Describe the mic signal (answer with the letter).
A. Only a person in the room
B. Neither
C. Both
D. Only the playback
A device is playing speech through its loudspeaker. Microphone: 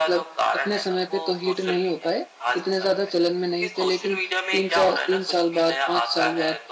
C